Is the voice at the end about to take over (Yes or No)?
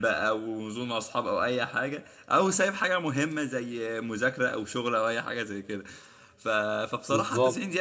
No